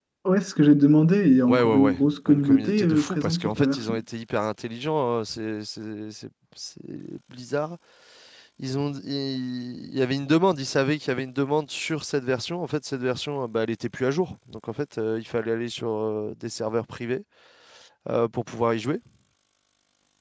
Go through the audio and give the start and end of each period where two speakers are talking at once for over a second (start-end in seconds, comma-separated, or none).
1.5-4.0